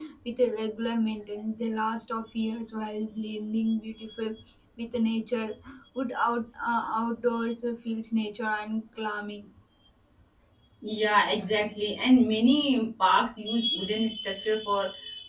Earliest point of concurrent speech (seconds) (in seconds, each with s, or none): none